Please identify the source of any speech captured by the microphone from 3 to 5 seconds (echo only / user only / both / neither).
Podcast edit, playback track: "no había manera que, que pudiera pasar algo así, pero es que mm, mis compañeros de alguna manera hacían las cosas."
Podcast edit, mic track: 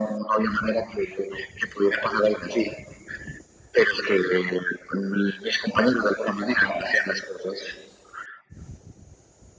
echo only